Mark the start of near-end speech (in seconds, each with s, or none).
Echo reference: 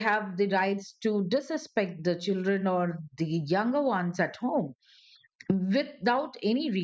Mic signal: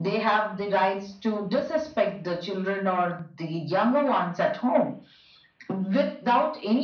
none